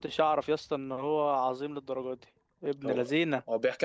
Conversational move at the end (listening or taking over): taking over